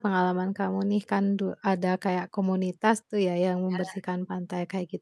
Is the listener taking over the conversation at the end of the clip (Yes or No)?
No